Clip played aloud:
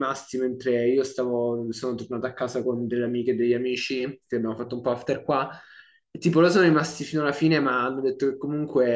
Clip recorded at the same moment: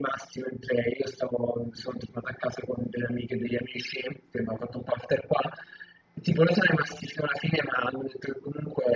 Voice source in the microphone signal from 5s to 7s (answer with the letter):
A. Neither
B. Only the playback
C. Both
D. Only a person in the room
B